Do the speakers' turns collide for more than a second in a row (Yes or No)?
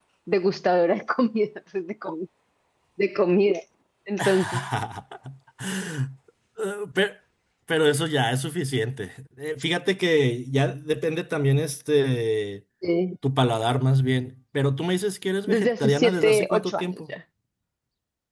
Yes